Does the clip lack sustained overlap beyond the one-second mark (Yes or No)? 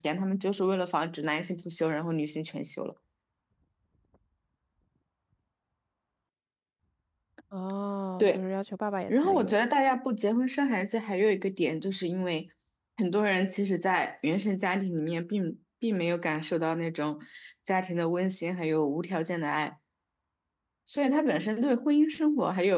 Yes